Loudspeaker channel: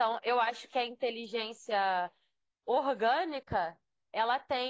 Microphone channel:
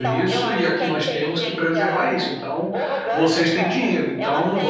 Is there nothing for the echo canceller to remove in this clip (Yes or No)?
No